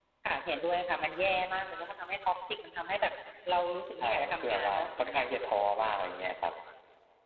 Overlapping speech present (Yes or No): Yes